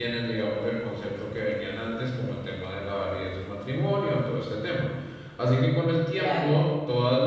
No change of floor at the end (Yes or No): Yes